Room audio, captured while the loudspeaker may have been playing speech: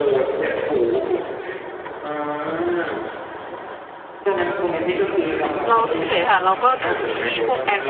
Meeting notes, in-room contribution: present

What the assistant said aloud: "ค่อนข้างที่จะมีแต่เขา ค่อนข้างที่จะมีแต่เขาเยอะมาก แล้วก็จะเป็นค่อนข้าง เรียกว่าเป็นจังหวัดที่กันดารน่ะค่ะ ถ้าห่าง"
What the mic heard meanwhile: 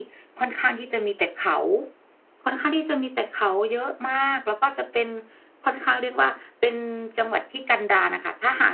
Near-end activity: none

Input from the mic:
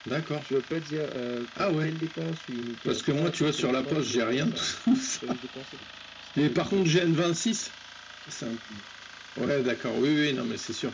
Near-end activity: none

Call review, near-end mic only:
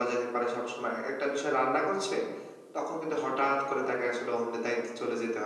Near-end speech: none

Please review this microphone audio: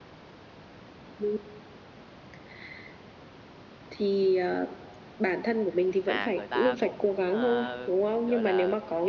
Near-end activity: present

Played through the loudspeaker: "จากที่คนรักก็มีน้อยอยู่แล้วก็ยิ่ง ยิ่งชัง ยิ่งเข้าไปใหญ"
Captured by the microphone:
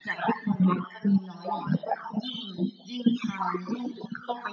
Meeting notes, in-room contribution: none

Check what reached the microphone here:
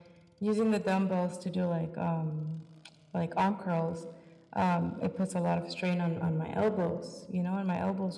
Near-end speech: none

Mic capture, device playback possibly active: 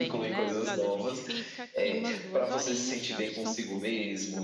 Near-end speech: present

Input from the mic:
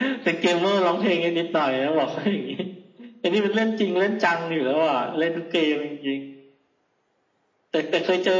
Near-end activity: none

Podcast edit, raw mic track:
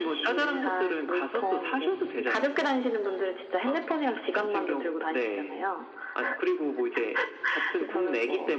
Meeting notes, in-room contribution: none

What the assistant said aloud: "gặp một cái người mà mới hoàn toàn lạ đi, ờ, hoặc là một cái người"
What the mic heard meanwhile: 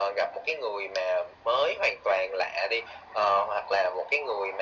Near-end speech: none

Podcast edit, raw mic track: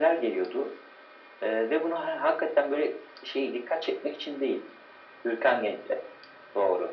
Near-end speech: none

